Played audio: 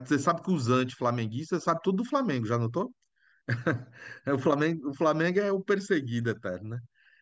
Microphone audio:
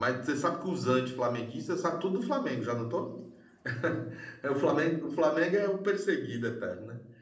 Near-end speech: none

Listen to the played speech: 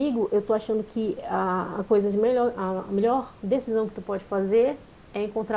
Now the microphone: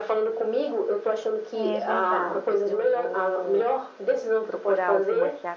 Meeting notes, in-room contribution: present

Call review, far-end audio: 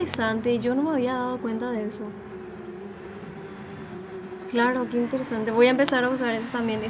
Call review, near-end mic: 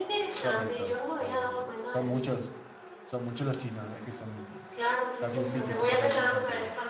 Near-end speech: present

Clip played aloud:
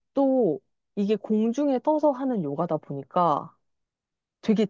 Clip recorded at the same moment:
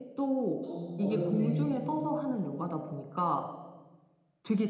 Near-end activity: present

